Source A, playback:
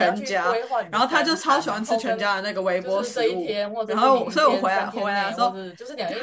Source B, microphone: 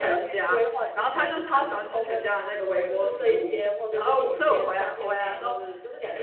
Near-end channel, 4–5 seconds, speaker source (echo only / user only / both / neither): echo only